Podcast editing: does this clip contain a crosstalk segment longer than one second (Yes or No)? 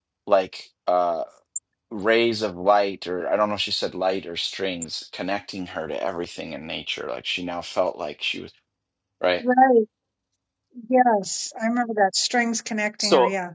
No